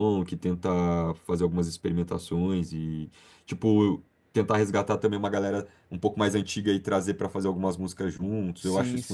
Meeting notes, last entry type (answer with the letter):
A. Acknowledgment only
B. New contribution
B